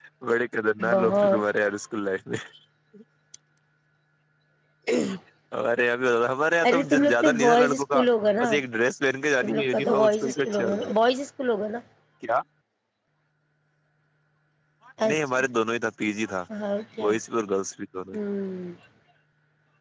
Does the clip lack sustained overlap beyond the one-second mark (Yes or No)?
No